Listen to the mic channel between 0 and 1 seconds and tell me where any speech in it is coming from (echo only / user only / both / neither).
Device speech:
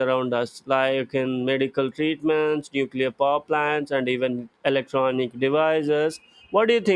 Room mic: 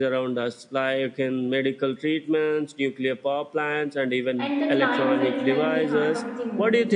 echo only